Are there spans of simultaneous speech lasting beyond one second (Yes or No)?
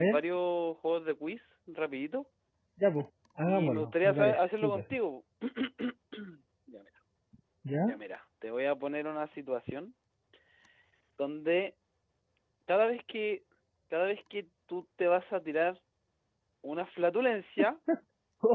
Yes